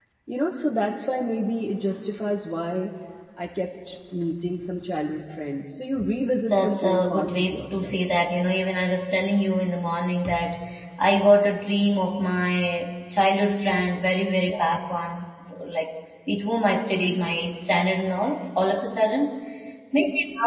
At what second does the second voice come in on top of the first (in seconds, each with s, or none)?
6.5 s